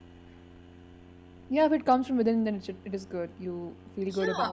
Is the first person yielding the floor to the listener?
Yes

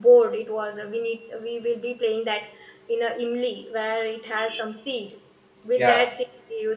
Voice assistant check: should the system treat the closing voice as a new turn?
No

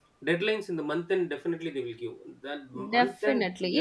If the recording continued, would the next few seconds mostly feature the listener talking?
Yes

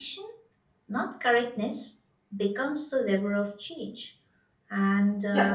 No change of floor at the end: No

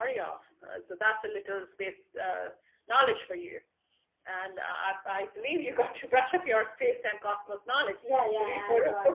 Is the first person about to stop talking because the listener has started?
Yes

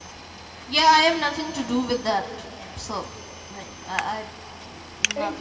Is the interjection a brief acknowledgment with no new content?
No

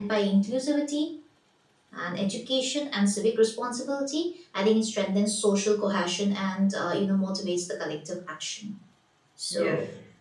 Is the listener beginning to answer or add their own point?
Yes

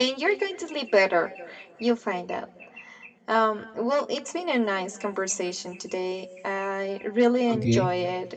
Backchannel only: Yes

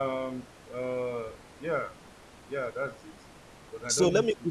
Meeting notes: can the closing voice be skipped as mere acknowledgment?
No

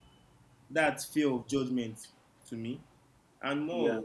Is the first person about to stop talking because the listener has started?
No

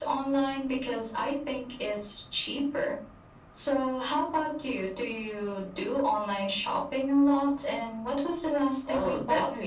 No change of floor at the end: No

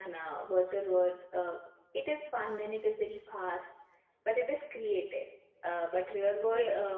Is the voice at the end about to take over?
No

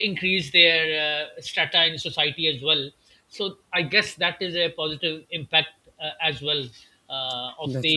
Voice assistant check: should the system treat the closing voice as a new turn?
No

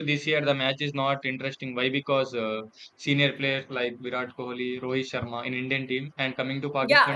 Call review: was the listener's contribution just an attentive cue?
No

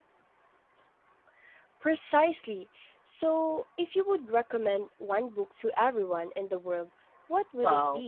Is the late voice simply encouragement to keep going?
No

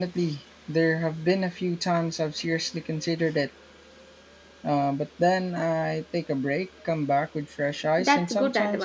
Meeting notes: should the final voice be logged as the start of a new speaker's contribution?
Yes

